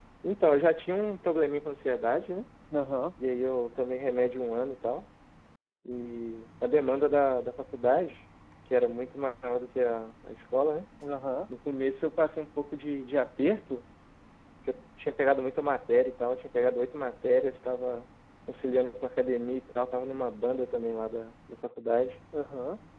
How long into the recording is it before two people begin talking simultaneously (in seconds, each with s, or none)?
none